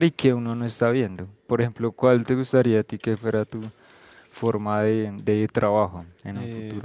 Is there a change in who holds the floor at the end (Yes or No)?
Yes